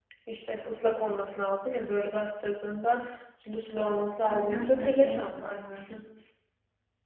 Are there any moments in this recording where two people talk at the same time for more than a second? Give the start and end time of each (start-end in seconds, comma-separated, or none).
4.3-5.6